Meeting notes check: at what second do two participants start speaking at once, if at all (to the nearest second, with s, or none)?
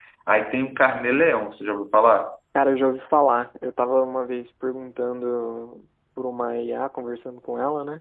none